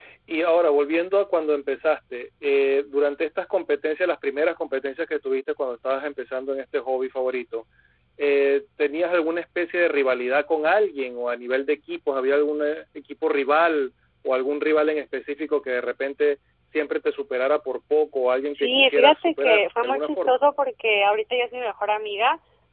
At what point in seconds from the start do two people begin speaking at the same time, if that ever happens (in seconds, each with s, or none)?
18.5 s